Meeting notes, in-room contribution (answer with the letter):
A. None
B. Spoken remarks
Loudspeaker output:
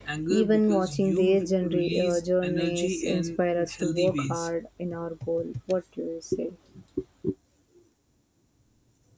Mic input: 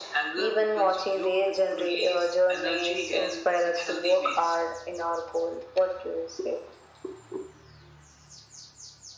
A